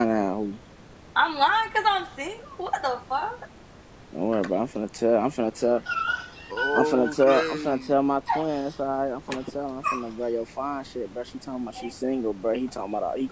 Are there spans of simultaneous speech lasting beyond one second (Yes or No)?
Yes